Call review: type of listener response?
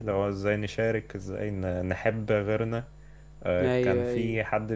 listening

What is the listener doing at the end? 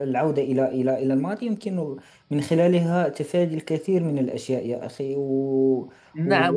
taking over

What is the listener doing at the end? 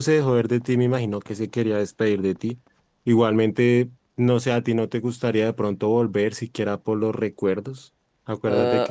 taking over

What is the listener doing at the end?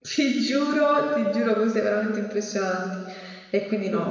listening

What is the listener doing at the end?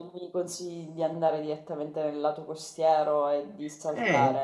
taking over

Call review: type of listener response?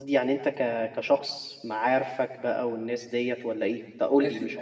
taking over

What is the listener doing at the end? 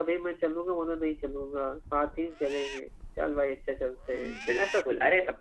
taking over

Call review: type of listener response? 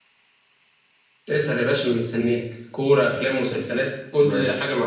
taking over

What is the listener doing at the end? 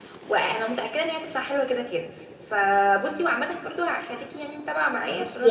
taking over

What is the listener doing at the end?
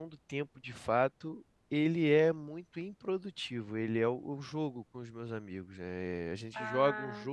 listening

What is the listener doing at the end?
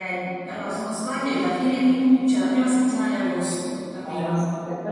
taking over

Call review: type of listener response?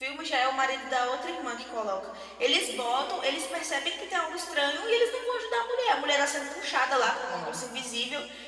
listening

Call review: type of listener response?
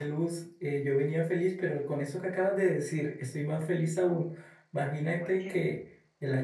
listening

